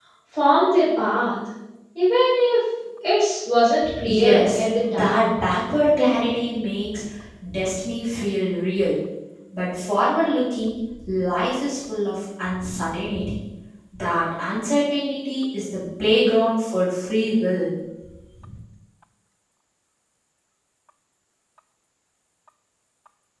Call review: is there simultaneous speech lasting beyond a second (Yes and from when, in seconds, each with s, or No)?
Yes, from 3.8 s